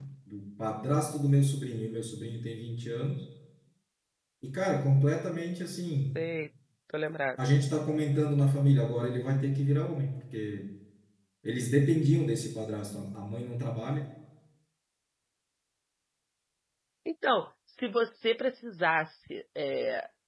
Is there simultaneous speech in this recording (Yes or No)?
No